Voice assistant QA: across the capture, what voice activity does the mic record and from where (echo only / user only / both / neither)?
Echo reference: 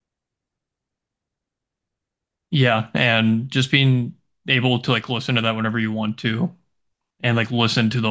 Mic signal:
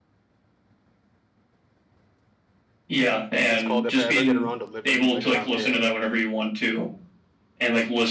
both